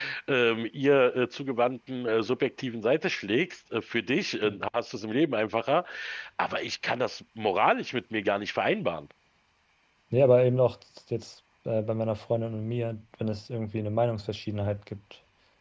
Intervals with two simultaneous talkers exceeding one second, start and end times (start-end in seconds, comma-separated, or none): none